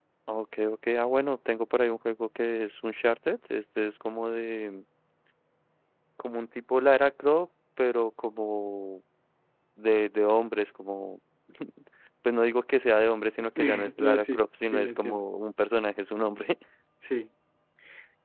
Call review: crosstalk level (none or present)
present